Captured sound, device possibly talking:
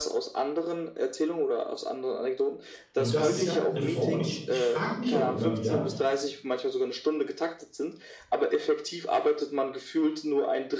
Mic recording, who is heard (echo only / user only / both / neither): both